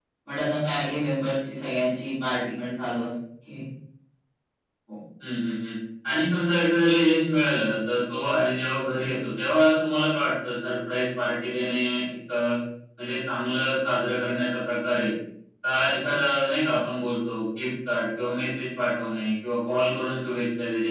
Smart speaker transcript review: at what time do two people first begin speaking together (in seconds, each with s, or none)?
none